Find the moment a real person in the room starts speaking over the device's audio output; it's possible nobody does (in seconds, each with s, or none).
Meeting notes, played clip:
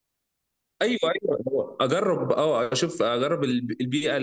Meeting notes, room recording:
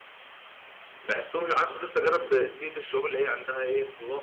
1.0 s